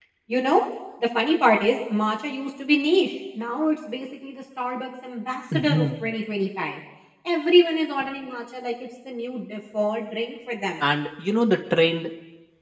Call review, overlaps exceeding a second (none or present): none